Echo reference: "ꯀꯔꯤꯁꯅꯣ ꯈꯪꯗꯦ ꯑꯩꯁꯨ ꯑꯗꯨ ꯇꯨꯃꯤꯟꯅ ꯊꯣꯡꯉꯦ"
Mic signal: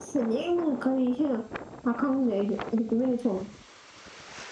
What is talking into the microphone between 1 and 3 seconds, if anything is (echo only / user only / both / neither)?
echo only